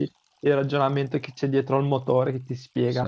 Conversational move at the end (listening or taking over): taking over